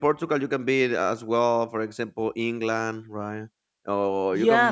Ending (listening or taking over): listening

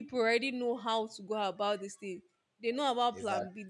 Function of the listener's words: listening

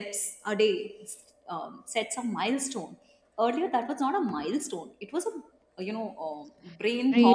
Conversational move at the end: taking over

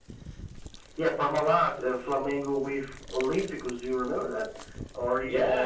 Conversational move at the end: taking over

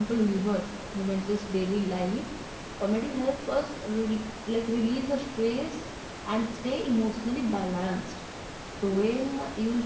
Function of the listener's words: listening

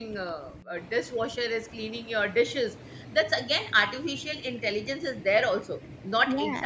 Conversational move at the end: listening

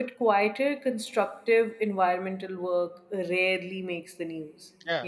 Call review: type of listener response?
listening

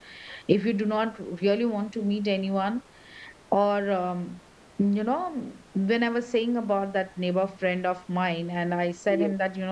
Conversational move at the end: listening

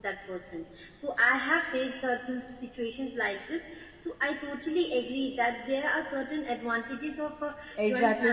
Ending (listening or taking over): taking over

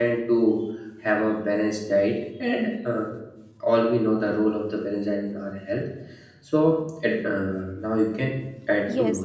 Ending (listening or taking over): taking over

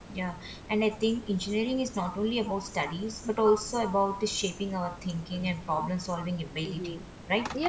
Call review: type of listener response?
taking over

